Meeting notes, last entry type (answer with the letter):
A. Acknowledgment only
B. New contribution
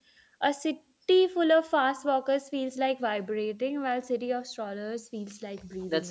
B